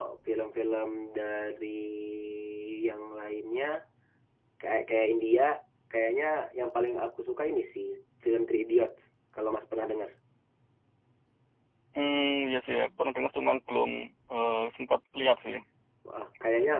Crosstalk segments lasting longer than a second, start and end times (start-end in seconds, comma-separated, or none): none